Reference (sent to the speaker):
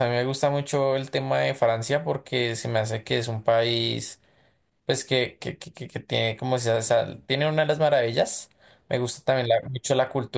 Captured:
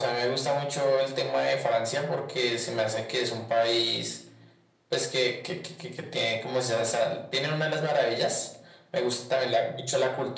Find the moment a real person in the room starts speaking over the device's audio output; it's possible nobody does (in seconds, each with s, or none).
none